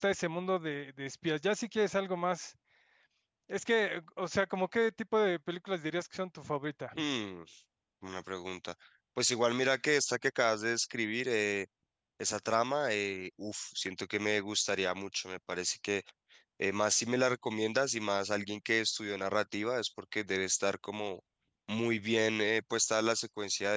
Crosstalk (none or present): none